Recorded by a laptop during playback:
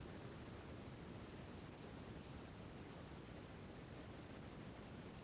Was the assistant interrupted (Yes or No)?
No